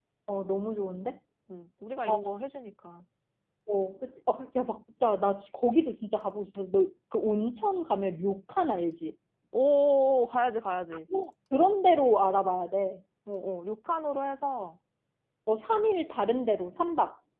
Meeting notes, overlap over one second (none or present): none